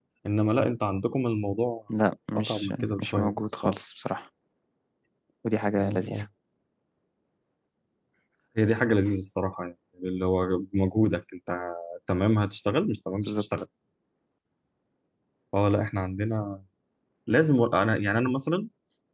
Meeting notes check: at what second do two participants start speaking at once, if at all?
2.4 s

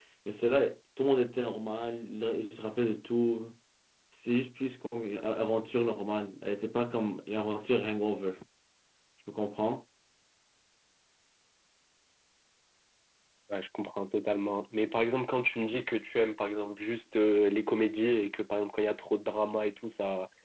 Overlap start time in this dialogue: none

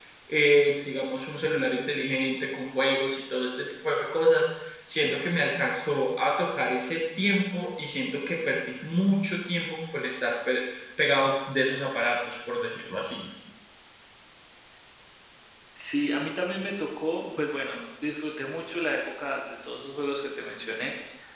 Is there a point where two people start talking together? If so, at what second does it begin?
none

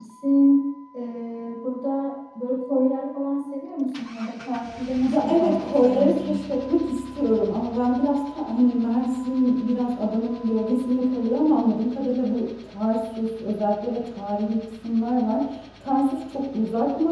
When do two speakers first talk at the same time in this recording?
5.1 s

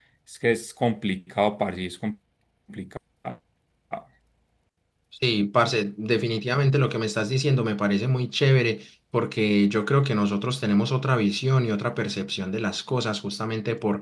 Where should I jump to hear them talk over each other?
none

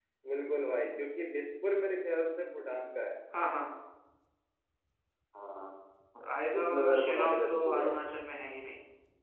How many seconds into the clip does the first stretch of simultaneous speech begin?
6.6 s

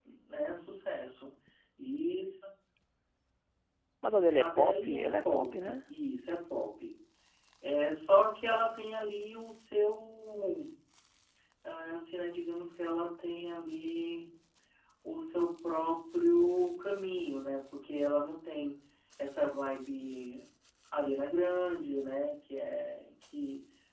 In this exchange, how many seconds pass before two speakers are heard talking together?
4.4 s

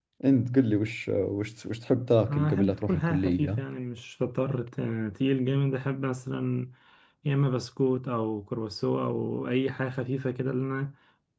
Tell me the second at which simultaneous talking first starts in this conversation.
2.2 s

